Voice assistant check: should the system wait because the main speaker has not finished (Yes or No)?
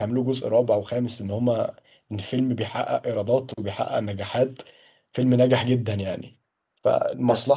Yes